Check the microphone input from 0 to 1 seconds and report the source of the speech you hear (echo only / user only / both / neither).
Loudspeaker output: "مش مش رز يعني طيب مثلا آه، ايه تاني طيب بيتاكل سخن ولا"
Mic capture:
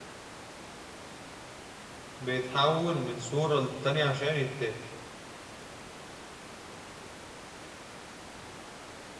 neither